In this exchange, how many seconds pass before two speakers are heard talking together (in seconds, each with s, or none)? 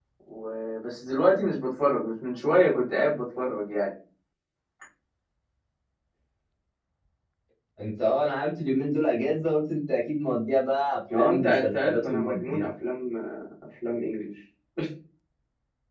11.1 s